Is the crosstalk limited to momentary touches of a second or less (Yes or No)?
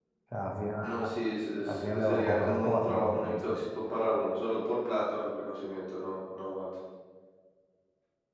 No